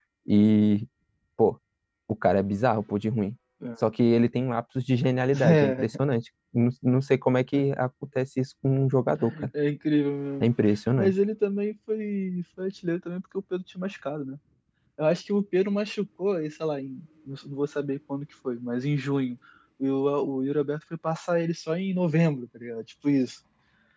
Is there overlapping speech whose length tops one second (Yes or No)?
No